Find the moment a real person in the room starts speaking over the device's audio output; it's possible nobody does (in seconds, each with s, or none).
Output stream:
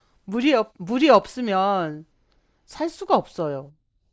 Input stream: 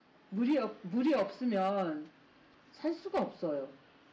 none